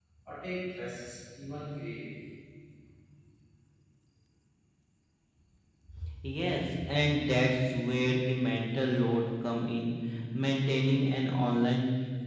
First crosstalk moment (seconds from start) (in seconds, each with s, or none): none